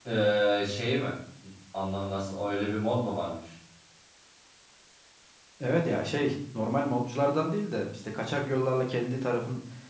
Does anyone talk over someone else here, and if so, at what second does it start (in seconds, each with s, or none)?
none